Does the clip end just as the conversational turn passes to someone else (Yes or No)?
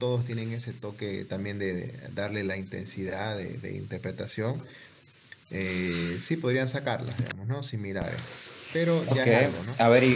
Yes